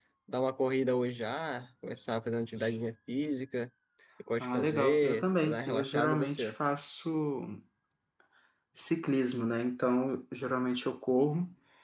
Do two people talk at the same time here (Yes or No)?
Yes